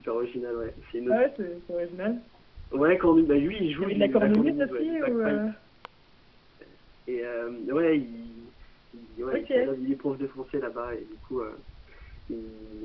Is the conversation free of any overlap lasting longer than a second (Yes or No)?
No